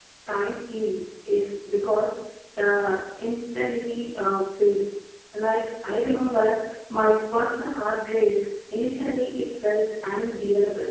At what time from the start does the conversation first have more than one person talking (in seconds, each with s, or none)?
none